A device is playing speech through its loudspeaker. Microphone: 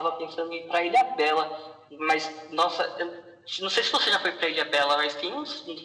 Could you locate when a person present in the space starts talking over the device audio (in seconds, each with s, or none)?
none